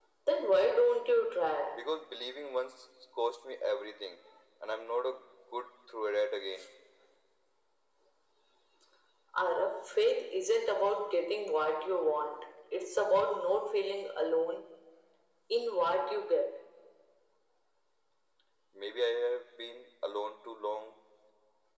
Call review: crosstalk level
none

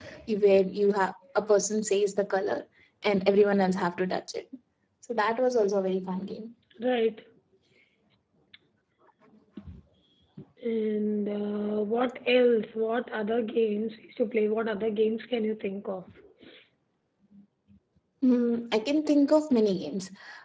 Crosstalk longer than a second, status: none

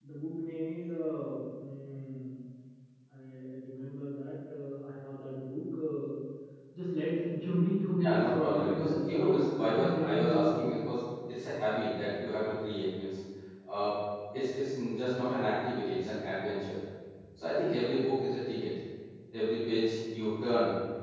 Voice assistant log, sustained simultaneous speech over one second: present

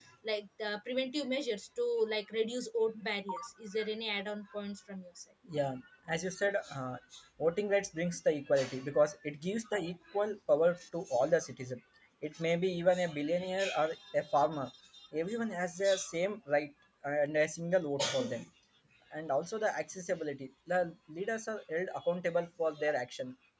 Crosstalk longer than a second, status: none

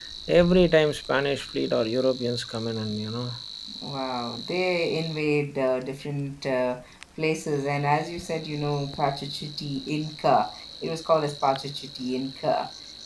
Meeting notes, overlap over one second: none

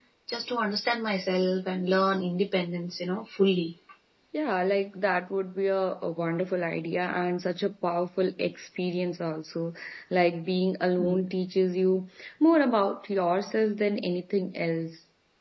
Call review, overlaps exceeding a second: none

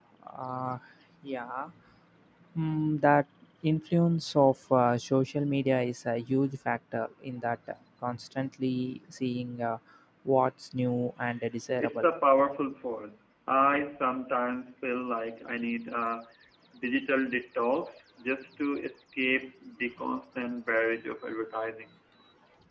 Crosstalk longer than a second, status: none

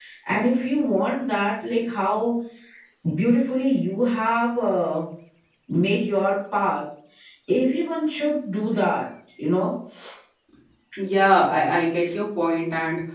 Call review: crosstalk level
none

